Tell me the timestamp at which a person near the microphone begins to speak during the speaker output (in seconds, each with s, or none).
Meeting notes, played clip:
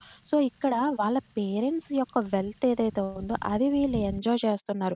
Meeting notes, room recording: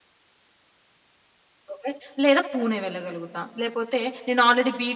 1.7 s